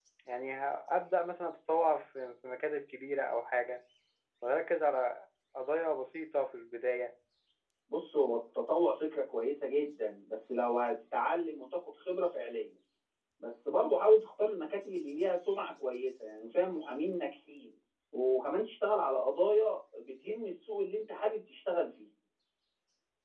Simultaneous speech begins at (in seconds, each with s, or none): none